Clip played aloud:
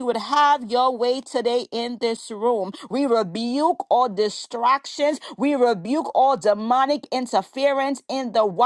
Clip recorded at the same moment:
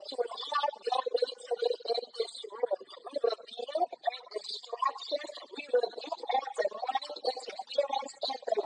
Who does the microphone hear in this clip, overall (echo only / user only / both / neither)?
echo only